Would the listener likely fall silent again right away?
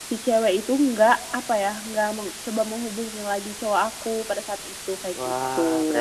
No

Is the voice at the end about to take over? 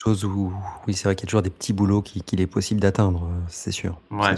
Yes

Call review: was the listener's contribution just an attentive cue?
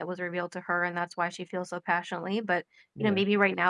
Yes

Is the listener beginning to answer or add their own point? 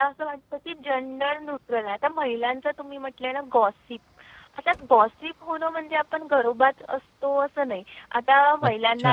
No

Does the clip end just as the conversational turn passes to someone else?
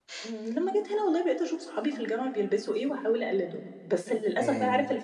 No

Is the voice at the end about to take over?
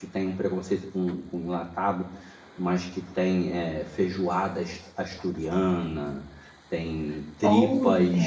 No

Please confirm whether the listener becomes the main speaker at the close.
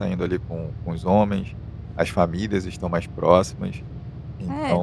Yes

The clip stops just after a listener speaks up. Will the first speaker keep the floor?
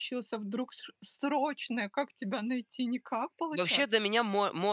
No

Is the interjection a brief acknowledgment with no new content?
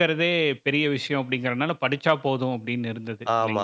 No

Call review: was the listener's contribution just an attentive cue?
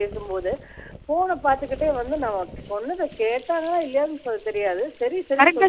No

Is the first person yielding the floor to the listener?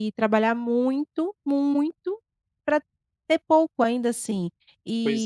No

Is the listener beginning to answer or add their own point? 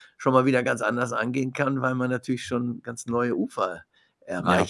Yes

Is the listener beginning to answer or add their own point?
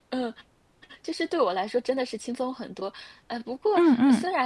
No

